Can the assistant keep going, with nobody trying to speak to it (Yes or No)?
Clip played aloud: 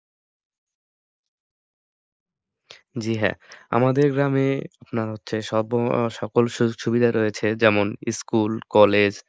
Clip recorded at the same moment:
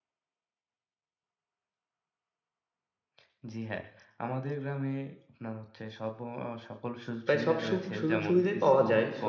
No